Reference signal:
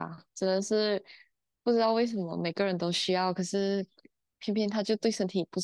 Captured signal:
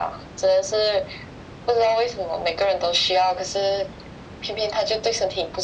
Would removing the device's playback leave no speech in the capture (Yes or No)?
Yes